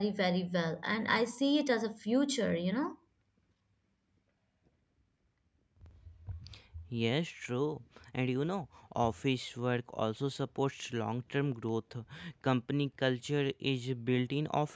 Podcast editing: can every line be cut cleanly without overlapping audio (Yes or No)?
Yes